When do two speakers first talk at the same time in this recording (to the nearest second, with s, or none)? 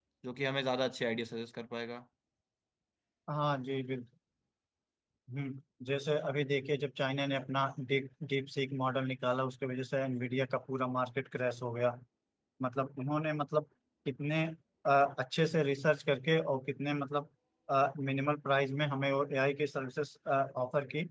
none